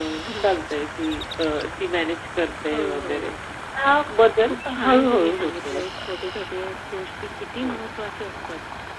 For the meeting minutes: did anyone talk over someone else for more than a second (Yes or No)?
Yes